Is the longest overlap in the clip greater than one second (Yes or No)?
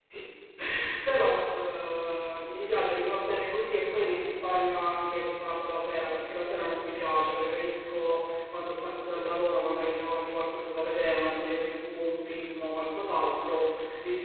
No